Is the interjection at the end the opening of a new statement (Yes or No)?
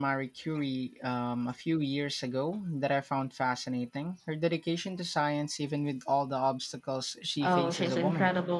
Yes